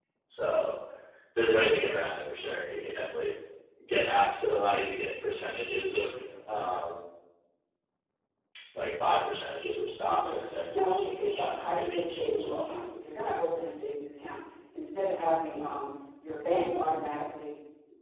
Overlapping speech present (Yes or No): Yes